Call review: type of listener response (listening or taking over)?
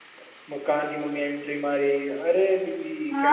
taking over